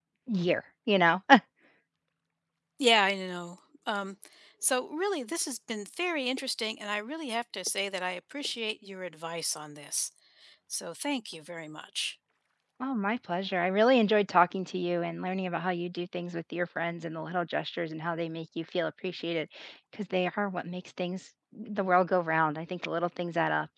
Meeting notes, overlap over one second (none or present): none